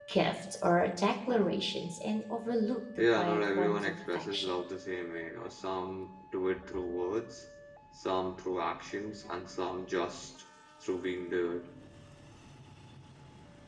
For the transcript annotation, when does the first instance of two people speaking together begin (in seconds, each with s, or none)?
3.0 s